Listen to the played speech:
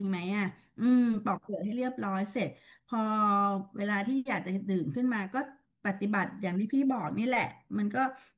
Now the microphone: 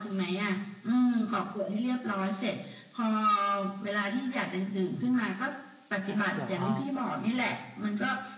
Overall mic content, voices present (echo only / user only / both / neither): both